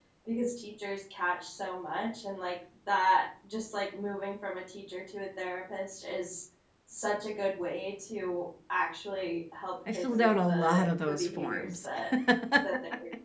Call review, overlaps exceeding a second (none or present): present